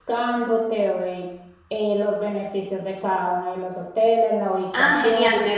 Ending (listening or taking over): taking over